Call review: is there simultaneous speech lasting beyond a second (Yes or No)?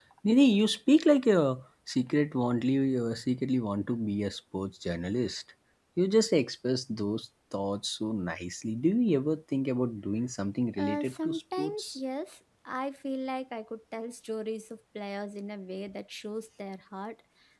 Yes